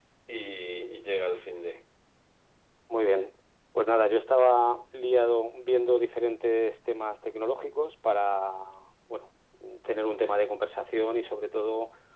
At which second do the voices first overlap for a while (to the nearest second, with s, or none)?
none